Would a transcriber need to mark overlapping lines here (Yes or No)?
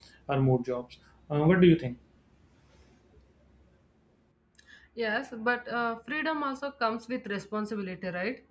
No